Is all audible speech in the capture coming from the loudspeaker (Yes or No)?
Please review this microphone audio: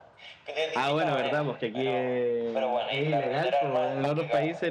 No